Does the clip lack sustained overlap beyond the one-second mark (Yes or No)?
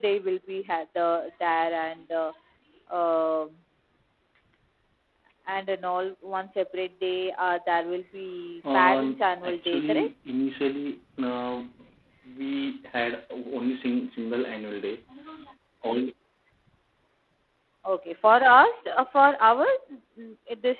No